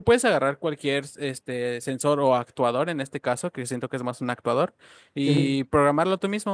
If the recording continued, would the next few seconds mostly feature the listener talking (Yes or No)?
No